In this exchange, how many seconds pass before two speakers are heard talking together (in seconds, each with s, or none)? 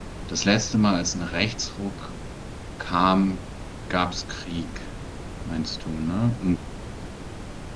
none